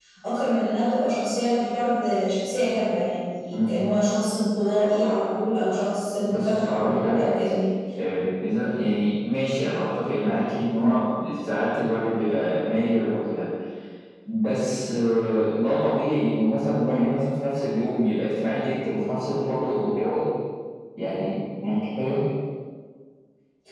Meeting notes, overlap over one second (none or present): present